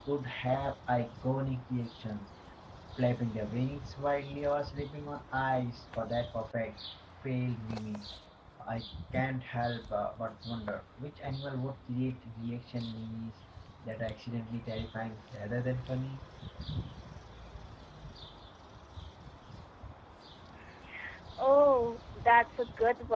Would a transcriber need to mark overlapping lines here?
No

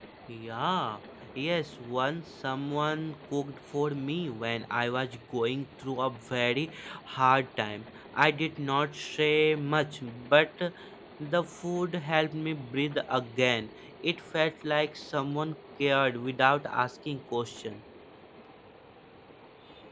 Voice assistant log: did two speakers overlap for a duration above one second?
No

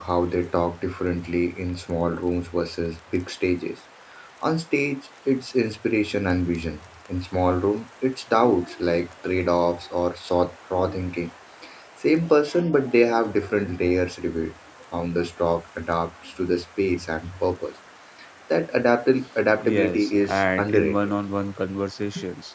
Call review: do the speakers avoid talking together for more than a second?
No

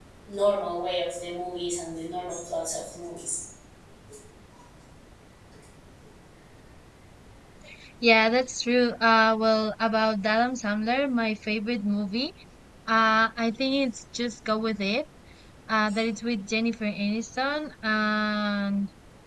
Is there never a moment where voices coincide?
Yes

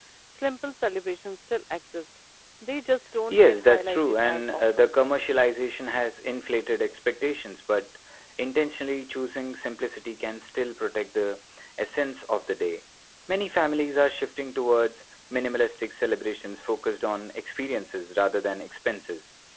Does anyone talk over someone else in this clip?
Yes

